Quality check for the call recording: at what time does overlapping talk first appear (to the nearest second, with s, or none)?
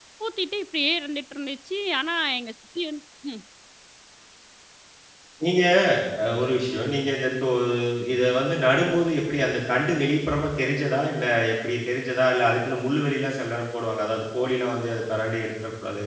none